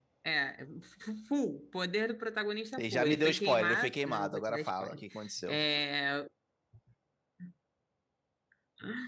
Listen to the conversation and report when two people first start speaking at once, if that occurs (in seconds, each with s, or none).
2.8 s